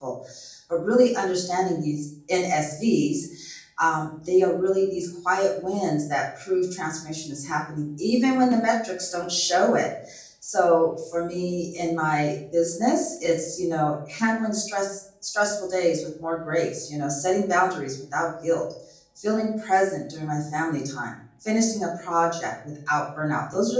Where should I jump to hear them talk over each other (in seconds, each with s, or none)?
none